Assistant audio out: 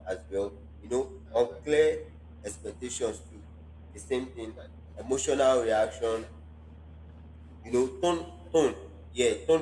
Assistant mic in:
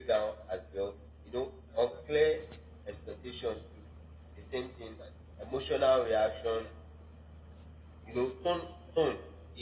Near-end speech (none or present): none